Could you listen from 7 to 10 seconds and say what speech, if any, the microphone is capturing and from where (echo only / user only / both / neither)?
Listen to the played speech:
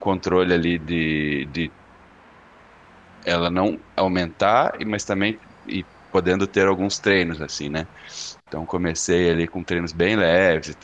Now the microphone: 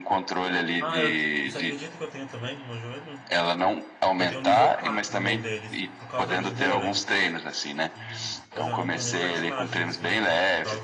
both